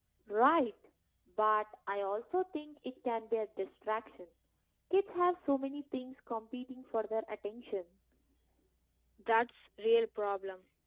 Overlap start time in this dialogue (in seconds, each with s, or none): none